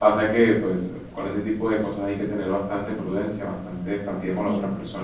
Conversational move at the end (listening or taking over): listening